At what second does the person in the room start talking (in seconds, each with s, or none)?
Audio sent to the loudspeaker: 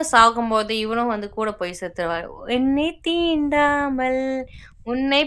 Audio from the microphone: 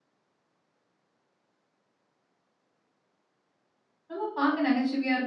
4.1 s